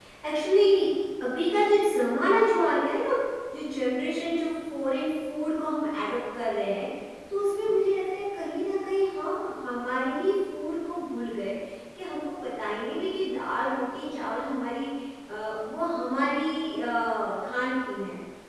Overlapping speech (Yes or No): No